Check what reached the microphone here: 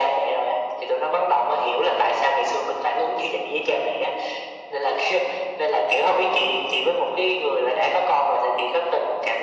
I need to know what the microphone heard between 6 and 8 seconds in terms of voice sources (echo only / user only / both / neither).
echo only